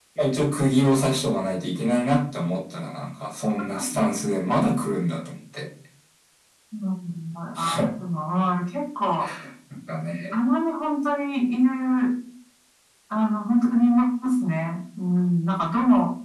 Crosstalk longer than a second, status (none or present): none